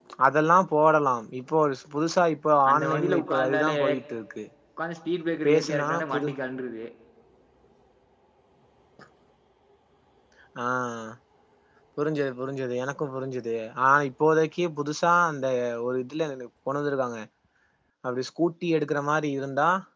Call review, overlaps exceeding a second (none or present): present